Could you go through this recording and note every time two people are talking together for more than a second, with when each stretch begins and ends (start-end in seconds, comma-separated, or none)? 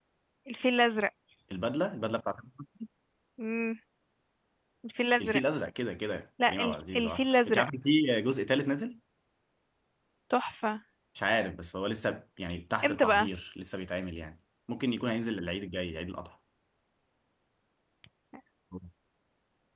6.5-7.7